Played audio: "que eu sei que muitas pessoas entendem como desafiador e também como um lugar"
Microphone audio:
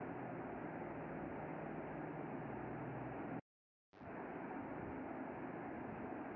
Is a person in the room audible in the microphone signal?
No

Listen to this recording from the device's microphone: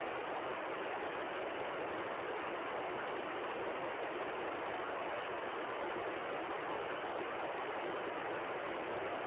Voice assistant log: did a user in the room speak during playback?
No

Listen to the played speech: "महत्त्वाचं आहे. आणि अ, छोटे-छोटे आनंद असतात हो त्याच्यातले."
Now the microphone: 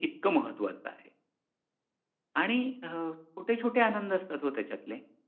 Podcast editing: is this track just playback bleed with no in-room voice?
Yes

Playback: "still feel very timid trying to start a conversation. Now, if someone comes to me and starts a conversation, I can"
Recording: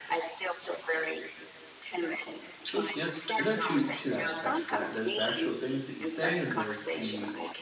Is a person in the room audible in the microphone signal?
Yes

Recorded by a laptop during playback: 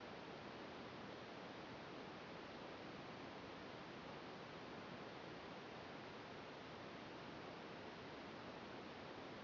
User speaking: No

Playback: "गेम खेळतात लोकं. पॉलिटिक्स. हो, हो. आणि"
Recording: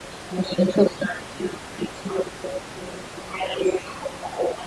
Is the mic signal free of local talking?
Yes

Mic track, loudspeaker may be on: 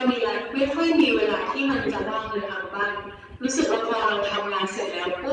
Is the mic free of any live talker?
Yes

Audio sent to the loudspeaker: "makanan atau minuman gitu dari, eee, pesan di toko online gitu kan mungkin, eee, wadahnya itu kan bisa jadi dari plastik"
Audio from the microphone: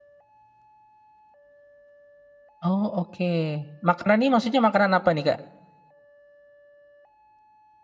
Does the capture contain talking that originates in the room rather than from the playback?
Yes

